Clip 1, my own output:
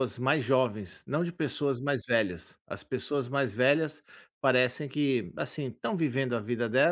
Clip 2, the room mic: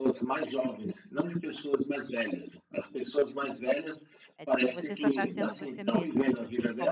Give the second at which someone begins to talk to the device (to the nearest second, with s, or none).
4 s